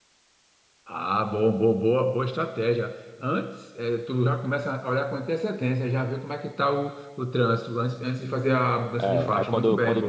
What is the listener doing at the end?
taking over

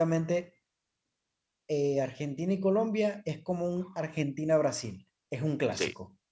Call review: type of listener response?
taking over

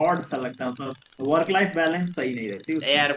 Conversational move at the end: taking over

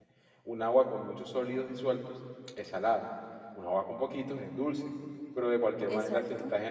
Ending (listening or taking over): listening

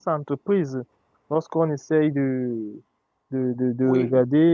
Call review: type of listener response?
listening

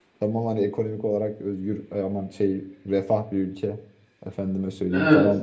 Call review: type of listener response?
listening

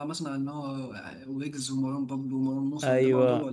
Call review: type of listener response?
taking over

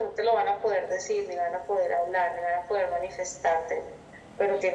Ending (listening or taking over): listening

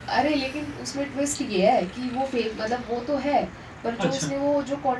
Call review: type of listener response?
listening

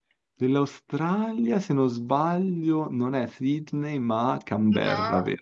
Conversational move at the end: taking over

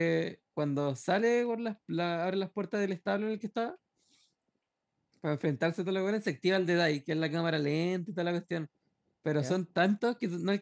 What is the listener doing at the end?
listening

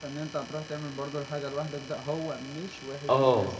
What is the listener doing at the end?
listening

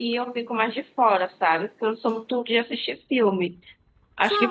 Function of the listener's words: taking over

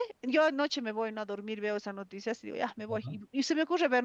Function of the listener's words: listening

